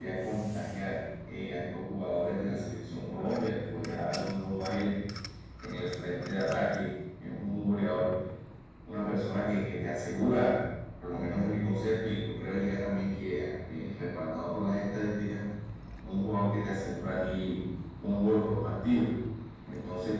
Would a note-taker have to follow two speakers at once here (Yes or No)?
No